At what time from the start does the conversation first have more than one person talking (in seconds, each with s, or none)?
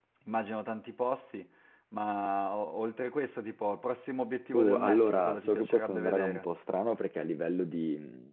4.5 s